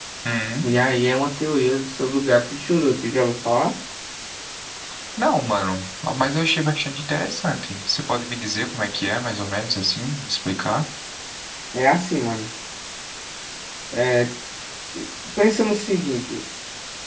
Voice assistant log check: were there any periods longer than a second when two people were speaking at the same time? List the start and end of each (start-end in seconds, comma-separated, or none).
none